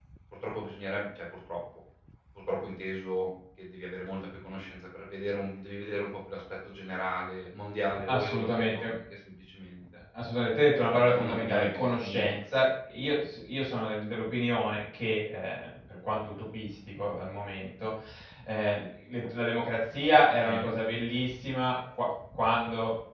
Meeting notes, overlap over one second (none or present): present